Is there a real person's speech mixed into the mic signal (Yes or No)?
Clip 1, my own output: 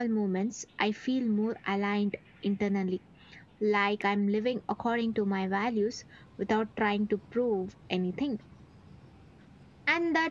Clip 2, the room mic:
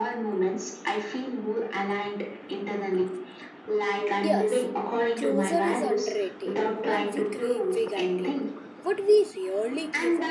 Yes